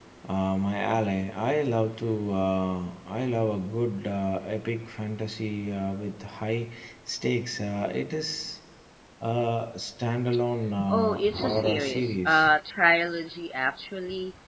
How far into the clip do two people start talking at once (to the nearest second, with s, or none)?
11 s